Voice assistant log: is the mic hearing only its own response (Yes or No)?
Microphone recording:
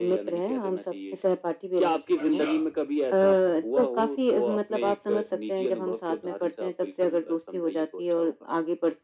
No